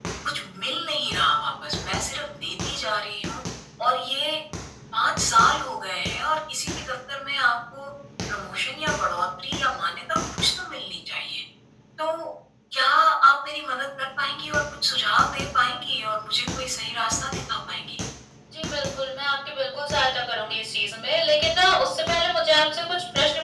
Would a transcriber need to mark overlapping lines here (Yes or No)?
No